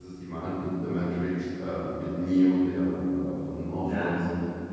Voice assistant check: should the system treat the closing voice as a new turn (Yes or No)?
No